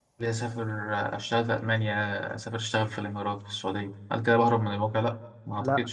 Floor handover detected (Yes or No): Yes